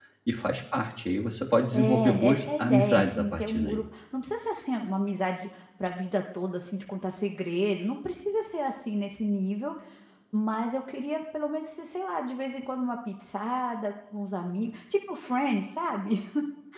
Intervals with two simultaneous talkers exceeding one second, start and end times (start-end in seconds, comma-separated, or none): 1.7-3.8